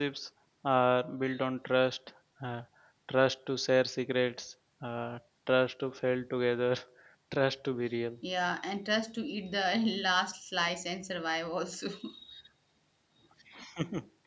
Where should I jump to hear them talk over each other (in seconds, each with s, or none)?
none